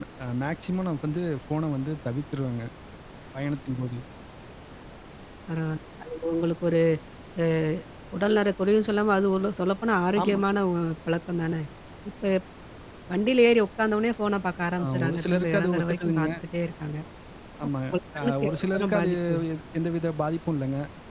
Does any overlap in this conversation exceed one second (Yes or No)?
Yes